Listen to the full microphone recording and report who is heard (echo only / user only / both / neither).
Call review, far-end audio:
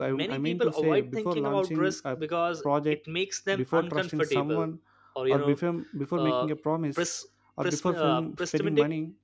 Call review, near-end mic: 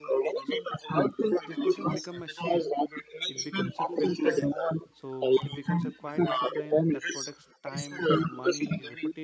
both